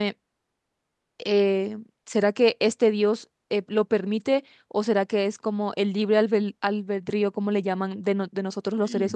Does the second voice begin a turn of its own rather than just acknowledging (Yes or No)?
No